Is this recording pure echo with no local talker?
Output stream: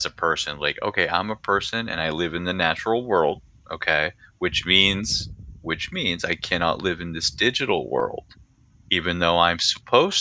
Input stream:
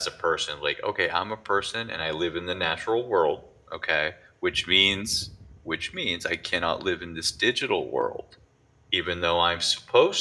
Yes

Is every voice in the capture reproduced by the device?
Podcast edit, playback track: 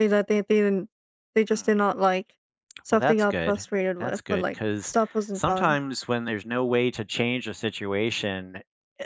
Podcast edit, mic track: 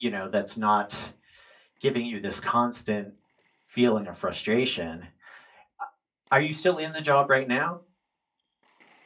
No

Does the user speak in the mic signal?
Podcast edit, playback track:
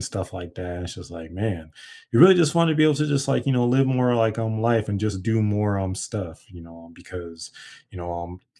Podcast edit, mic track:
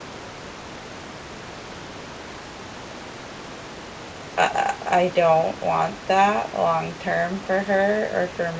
Yes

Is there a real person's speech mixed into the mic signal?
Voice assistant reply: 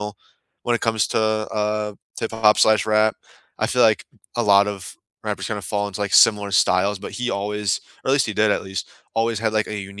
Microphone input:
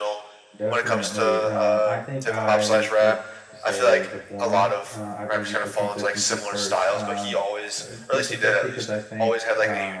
Yes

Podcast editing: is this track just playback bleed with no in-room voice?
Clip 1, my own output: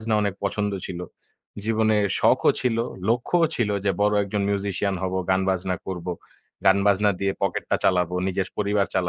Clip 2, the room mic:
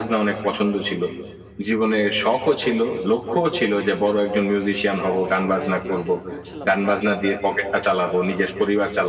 No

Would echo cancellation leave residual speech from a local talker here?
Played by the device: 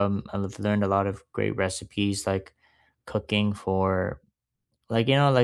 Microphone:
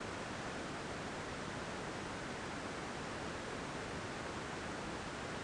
No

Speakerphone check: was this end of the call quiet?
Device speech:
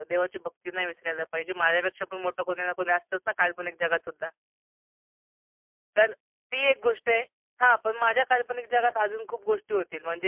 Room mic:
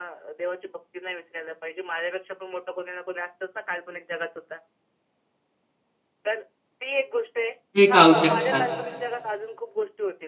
No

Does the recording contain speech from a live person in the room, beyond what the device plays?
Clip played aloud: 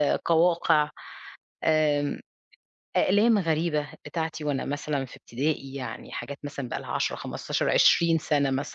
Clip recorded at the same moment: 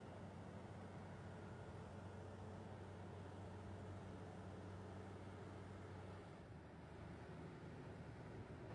No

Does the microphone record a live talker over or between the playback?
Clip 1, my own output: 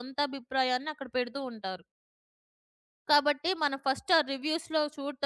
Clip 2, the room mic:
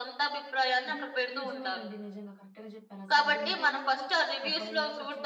Yes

